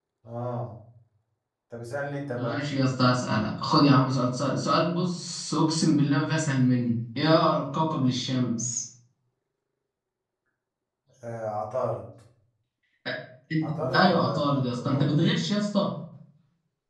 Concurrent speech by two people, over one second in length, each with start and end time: 13.6-15.3

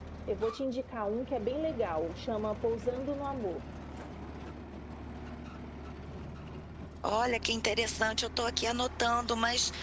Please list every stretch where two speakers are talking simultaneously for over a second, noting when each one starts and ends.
none

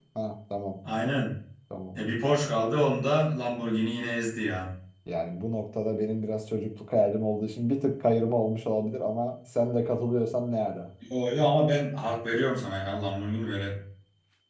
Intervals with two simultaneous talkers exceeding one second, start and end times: none

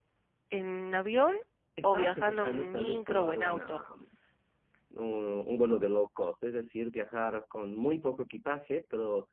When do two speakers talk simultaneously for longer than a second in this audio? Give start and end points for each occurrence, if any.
1.8-3.8

